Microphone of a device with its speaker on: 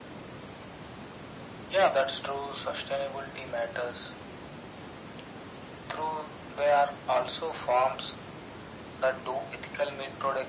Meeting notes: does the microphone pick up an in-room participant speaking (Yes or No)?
No